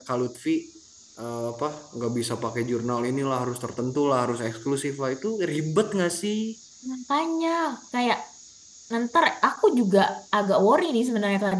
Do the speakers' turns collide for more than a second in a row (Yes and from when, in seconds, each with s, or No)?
No